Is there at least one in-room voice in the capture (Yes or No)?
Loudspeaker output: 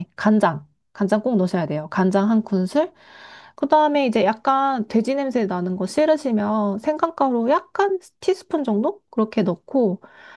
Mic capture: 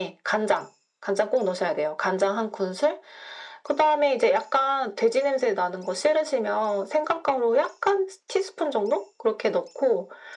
No